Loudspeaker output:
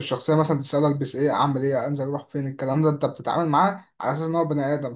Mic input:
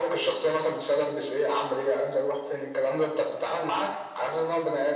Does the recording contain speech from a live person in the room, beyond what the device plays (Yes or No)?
No